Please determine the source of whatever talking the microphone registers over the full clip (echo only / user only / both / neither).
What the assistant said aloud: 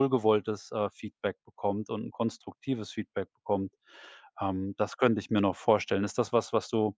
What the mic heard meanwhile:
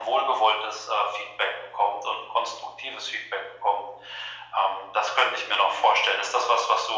echo only